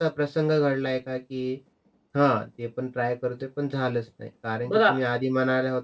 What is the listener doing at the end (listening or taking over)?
listening